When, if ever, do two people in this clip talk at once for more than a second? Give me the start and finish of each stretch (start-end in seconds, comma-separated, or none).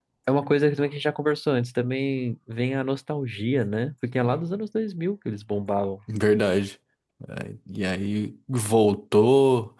none